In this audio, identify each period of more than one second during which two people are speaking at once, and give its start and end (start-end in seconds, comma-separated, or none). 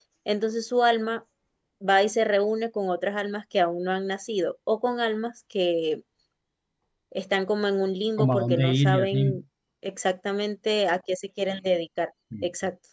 8.2-9.4